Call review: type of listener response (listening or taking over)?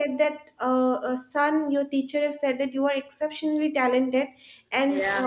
listening